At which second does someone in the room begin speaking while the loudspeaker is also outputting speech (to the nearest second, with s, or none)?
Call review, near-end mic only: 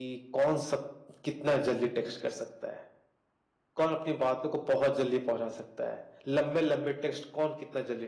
none